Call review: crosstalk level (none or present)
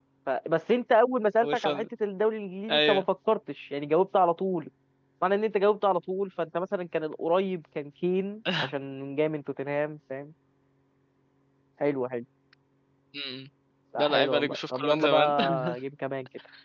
present